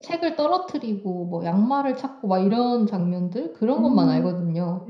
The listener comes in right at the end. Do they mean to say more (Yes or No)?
Yes